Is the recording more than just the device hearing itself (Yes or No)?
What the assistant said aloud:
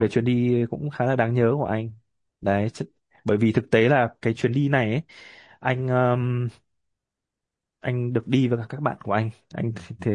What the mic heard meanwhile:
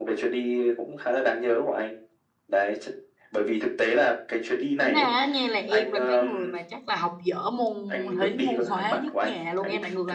Yes